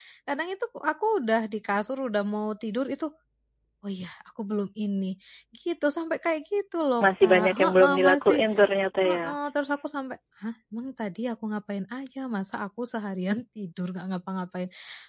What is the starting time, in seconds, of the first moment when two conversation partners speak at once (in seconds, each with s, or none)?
7.0 s